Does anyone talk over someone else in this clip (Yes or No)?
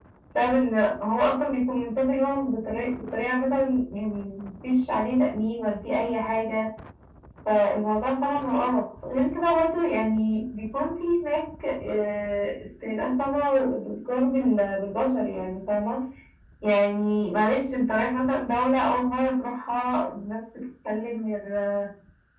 No